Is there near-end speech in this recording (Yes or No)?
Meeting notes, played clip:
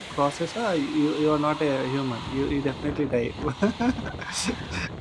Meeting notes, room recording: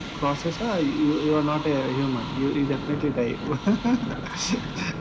No